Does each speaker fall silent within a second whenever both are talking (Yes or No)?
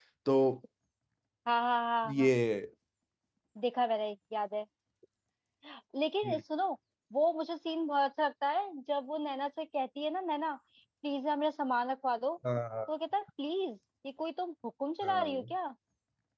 Yes